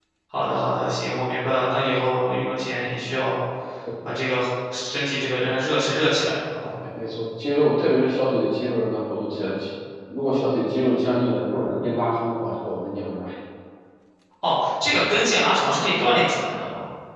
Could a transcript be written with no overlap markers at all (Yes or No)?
Yes